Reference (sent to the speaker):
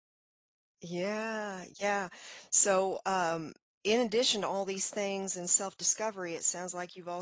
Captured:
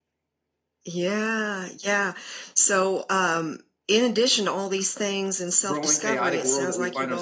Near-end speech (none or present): present